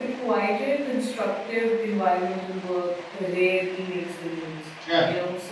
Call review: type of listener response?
listening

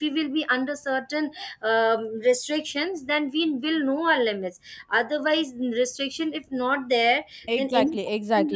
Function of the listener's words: taking over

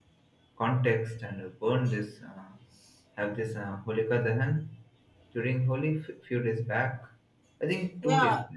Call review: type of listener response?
taking over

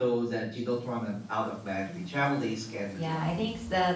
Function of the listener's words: taking over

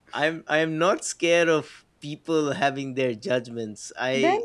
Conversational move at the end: listening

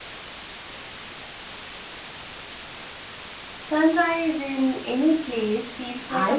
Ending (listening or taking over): taking over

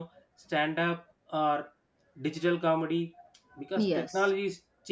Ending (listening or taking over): listening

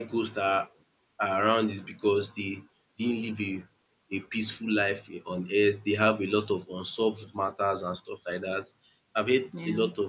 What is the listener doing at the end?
listening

